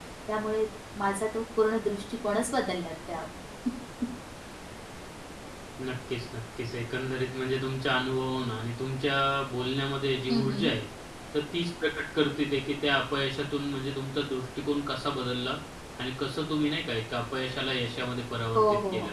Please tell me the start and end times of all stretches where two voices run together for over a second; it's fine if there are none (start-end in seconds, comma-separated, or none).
none